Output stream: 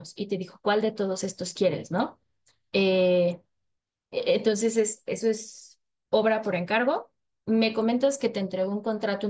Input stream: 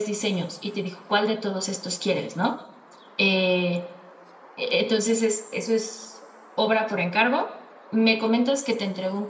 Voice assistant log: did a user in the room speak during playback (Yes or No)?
No